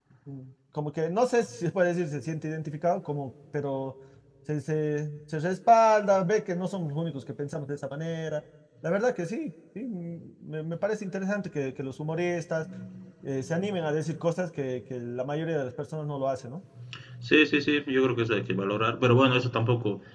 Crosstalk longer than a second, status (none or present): none